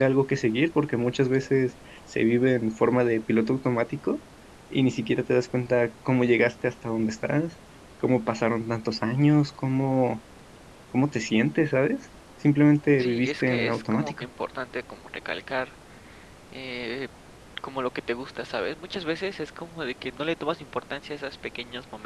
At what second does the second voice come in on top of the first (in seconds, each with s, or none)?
13.0 s